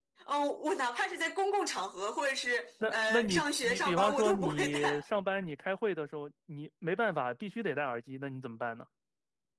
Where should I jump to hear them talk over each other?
3 s

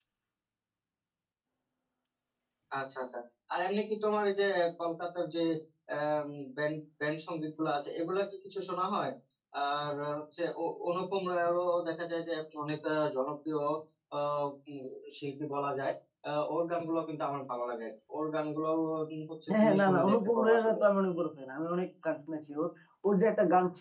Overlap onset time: 19 s

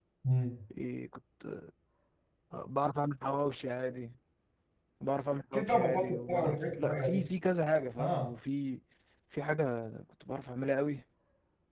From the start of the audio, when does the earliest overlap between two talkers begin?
6 s

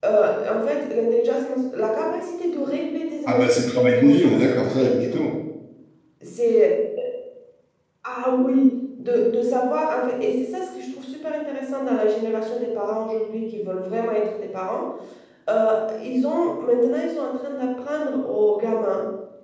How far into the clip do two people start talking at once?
3 s

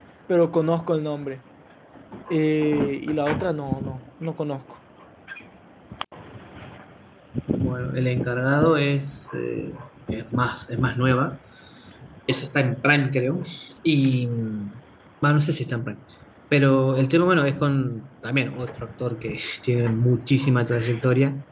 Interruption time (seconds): none

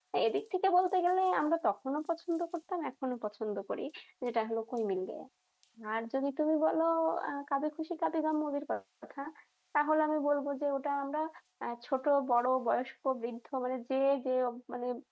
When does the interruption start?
none

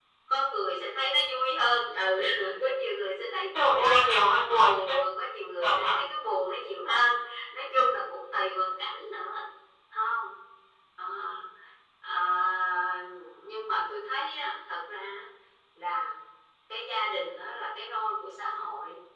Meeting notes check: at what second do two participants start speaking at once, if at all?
4 s

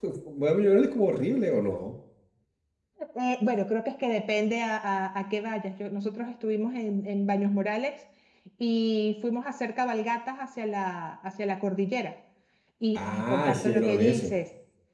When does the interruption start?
13 s

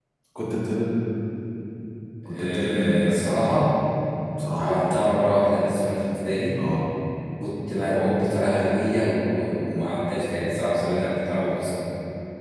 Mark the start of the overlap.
2 s

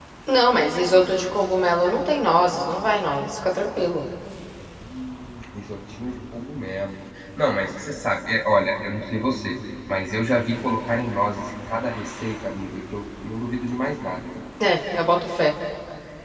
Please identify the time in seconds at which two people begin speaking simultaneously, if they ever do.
none

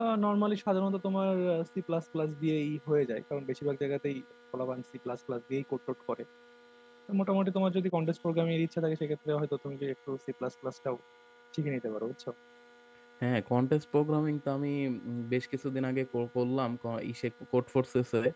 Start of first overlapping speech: none

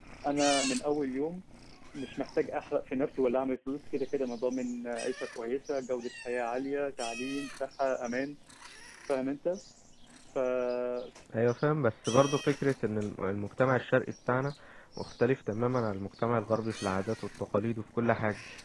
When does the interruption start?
none

